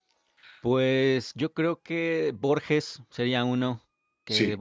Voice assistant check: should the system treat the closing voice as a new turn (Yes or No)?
No